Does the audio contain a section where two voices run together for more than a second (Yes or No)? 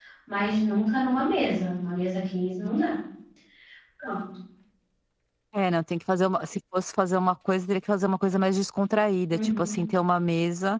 No